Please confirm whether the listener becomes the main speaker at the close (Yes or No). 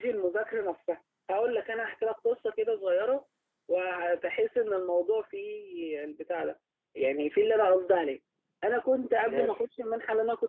No